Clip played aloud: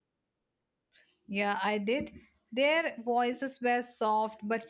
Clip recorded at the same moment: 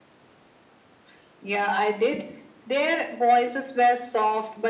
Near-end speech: none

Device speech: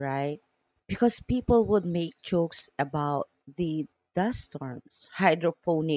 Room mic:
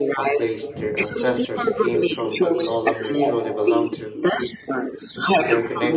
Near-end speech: present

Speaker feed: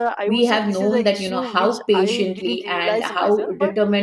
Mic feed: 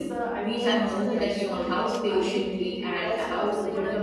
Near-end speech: present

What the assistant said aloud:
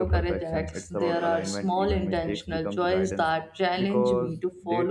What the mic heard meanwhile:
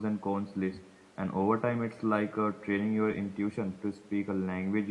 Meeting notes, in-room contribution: present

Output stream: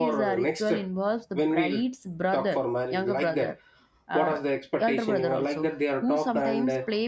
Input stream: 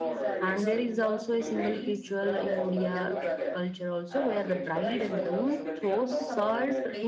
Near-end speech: present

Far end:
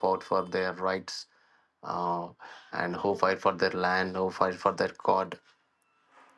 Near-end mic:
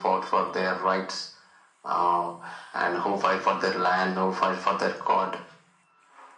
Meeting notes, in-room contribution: none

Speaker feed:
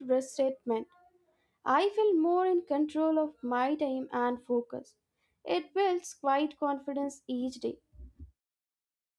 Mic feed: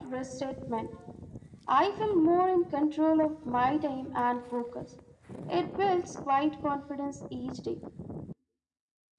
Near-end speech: none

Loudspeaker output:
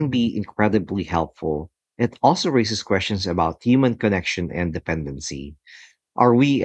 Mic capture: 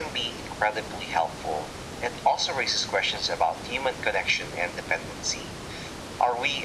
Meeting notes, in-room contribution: none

